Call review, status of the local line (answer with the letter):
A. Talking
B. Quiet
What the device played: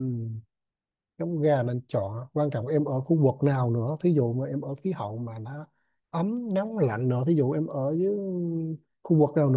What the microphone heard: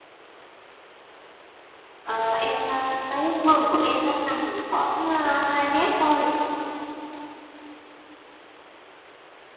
A